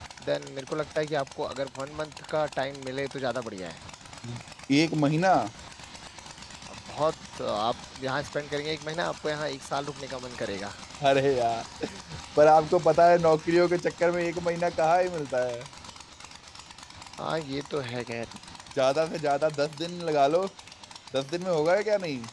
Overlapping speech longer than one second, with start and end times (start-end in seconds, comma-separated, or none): none